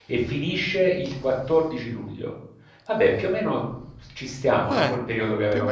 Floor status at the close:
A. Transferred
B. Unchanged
A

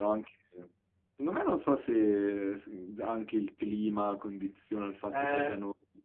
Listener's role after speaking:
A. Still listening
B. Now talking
B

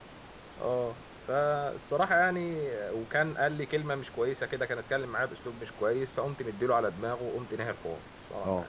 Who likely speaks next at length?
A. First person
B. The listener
B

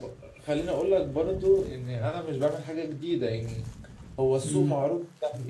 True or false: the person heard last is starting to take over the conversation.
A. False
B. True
A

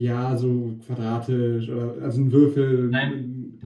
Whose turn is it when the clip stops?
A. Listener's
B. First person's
B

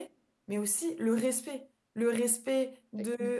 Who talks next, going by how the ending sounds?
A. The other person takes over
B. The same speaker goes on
B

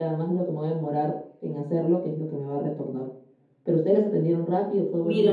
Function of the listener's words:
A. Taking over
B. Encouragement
A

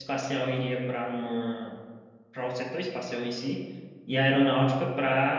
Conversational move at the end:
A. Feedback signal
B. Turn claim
A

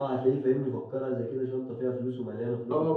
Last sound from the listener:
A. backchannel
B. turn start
B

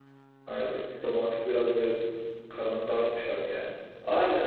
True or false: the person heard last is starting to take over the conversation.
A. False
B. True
B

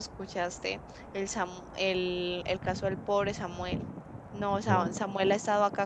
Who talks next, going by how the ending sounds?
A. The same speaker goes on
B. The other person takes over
A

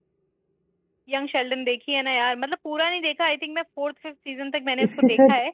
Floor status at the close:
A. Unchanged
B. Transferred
B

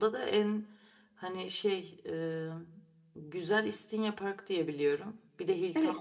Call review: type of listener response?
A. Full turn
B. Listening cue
A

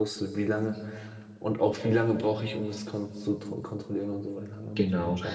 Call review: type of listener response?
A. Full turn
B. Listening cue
A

